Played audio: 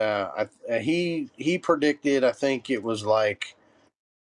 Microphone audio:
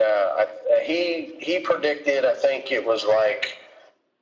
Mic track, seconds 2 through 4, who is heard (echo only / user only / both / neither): echo only